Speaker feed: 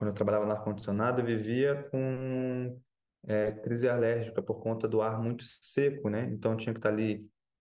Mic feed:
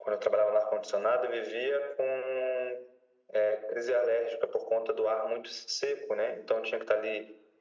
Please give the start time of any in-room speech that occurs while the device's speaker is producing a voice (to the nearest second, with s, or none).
none